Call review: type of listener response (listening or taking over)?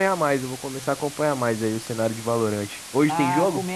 taking over